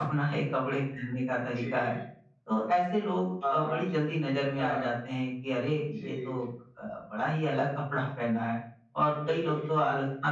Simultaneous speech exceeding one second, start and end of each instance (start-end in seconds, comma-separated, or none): none